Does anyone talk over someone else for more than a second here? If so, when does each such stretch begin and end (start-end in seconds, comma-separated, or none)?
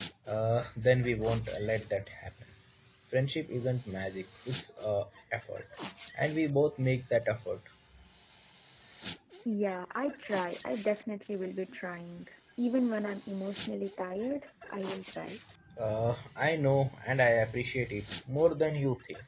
none